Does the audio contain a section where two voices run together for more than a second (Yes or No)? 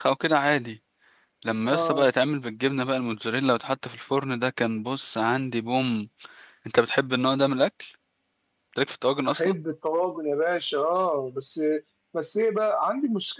No